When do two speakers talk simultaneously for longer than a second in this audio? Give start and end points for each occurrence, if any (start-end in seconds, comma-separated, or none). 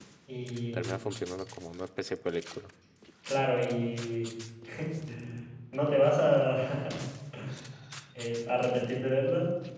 none